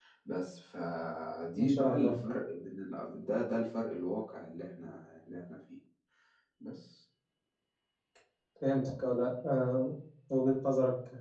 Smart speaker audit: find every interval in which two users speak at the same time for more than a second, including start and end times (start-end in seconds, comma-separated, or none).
none